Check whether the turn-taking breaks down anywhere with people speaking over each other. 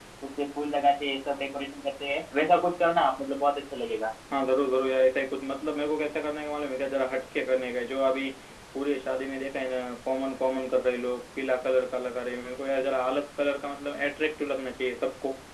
No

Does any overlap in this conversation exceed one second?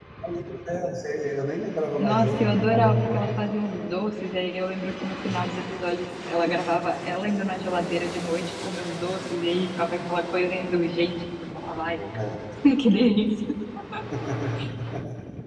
Yes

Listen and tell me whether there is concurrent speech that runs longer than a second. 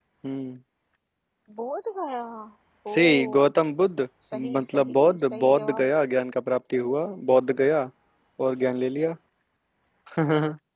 Yes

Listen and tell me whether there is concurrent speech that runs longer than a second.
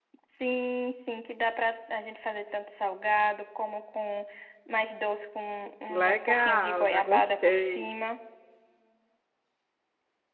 Yes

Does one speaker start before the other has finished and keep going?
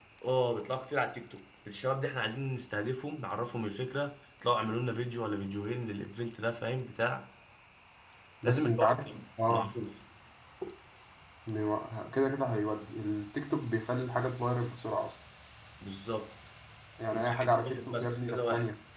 Yes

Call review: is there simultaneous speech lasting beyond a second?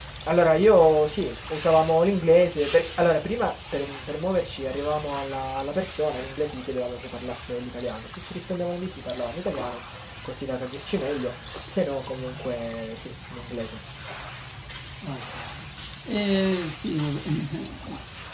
No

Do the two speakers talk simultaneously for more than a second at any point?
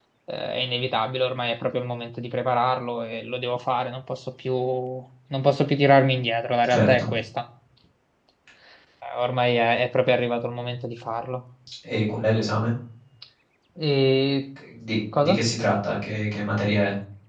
No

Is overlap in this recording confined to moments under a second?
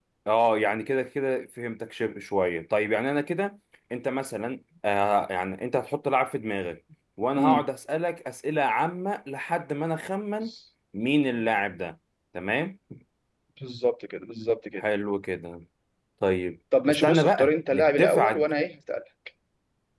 No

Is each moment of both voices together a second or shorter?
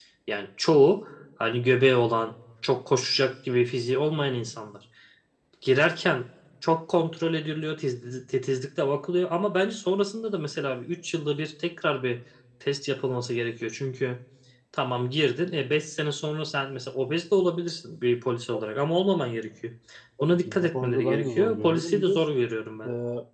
No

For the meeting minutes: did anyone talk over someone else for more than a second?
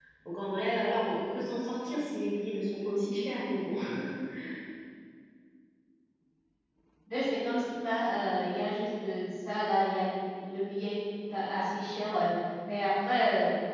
No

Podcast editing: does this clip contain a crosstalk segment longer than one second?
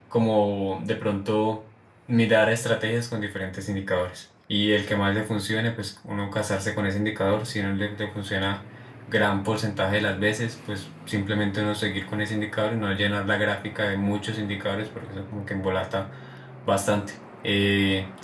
No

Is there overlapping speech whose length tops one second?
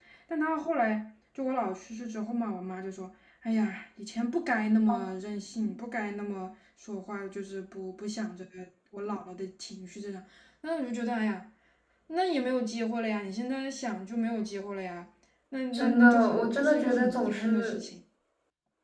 Yes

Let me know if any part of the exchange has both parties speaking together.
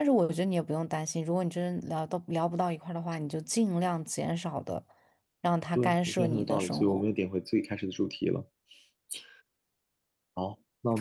Yes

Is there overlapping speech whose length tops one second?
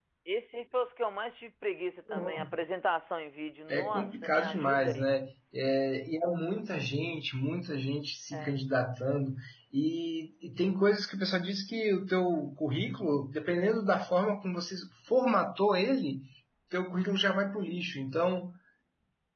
Yes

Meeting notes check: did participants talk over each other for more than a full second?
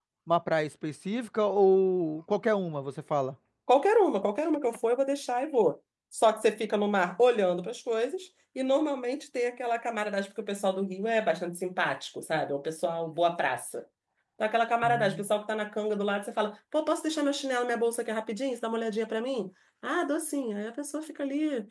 No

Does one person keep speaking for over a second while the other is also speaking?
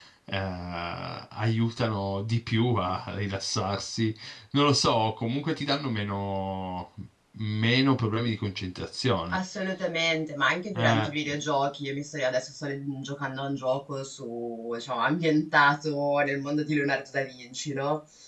No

